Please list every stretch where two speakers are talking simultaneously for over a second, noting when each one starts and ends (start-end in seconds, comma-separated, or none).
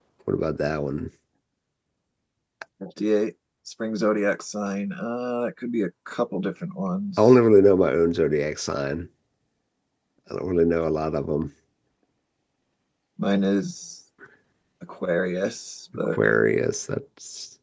none